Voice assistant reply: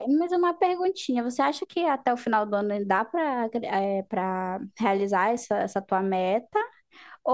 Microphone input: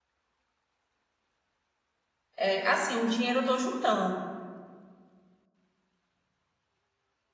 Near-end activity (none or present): present